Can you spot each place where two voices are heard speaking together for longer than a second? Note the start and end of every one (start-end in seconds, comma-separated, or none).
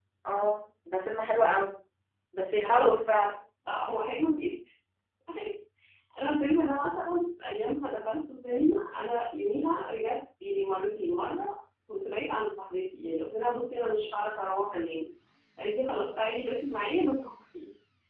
none